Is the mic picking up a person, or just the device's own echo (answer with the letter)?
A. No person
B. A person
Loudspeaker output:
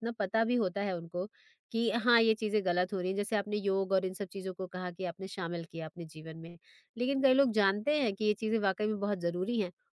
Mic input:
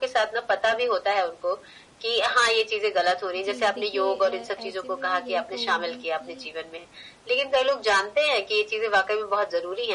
B